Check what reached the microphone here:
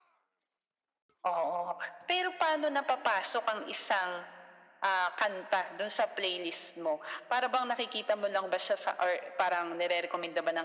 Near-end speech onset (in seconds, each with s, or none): none